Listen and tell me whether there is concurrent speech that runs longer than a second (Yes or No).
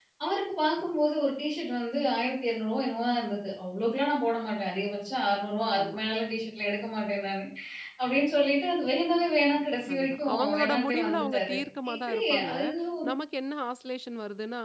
Yes